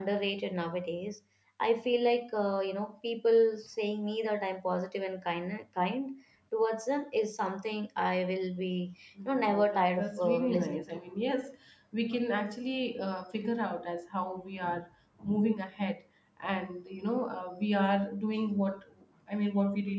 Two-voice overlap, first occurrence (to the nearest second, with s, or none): 9 s